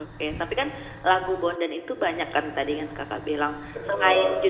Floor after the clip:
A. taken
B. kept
B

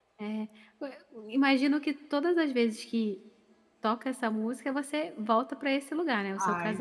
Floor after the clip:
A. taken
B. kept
A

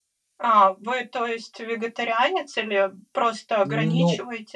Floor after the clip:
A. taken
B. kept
A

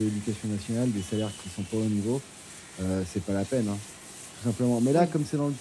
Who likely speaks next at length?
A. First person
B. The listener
A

